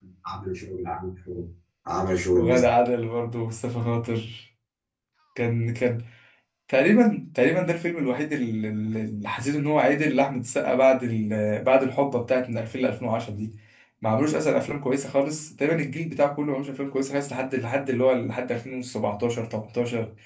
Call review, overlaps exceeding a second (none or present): none